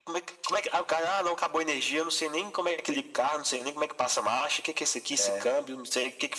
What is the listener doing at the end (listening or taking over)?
listening